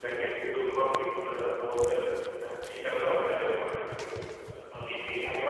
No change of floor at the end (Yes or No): No